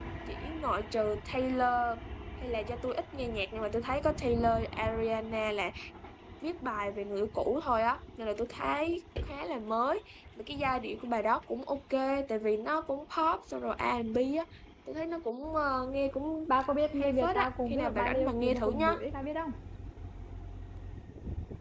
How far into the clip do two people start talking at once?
17.0 s

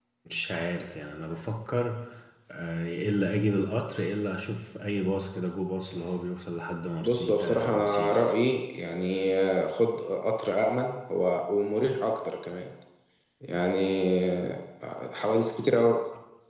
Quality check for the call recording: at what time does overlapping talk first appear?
7.0 s

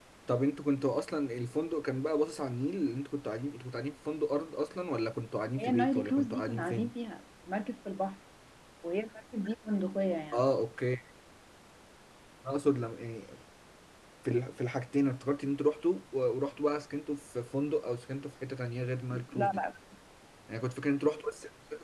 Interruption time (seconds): 5.6 s

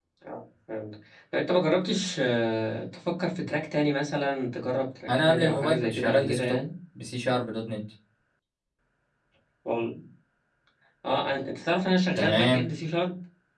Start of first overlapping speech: 5.1 s

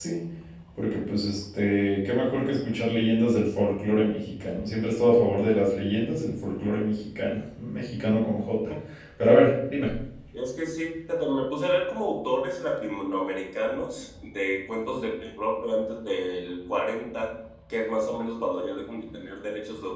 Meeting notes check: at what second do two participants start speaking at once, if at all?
none

